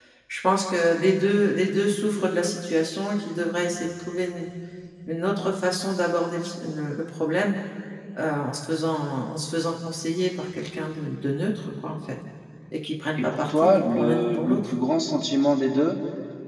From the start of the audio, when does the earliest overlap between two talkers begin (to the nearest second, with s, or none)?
13 s